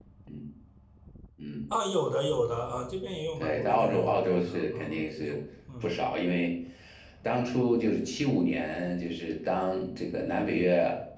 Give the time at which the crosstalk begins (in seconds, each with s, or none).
3.4 s